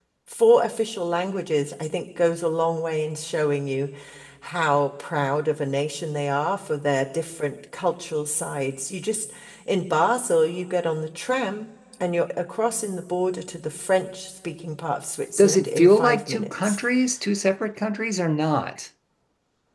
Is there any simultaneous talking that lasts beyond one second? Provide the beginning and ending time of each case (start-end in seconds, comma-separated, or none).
15.4-16.8